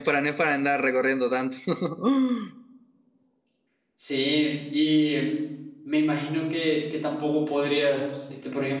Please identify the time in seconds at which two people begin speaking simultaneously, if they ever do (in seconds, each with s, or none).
none